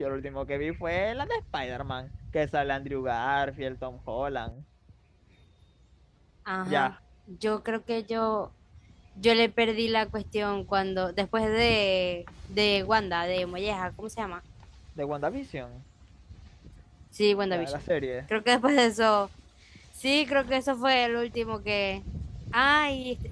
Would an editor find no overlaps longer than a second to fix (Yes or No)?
Yes